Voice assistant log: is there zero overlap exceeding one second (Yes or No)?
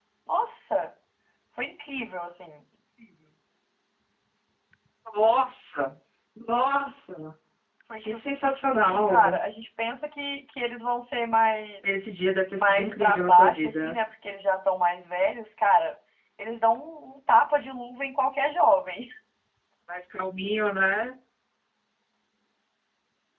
No